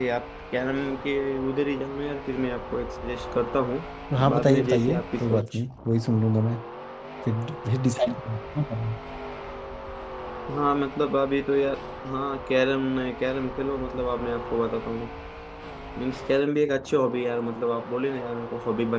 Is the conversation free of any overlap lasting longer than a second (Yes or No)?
No